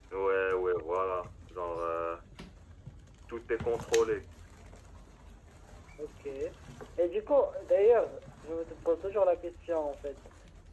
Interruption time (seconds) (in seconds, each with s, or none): none